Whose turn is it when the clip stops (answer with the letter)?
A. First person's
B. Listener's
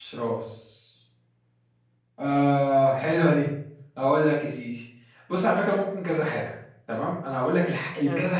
A